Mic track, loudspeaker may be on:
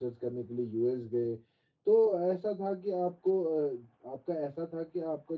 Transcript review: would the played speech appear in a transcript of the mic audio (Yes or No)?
No